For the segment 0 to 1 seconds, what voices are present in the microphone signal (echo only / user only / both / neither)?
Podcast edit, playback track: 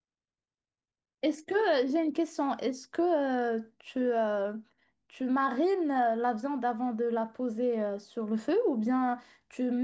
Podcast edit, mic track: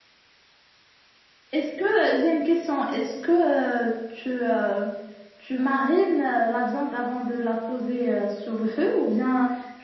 neither